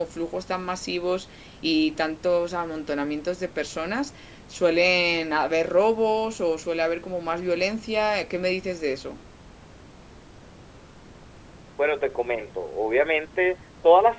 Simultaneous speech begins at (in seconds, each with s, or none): none